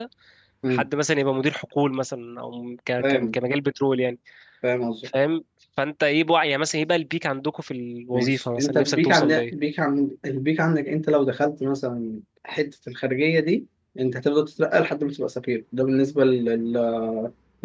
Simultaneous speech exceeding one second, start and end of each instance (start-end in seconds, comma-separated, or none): 8.1-9.3